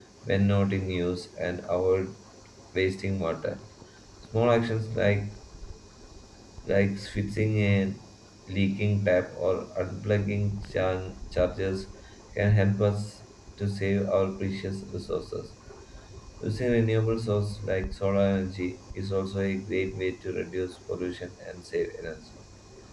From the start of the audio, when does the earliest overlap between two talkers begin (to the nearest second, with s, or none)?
none